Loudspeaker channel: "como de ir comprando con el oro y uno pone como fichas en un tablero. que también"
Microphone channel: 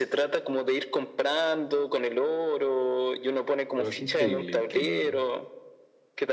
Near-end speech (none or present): present